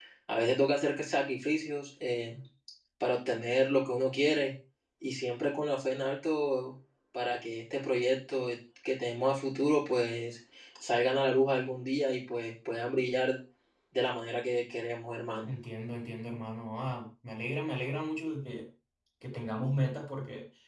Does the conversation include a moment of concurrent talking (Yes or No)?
No